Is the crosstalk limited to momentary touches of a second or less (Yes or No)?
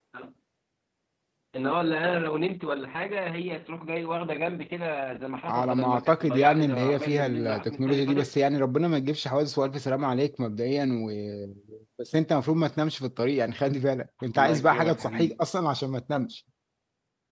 No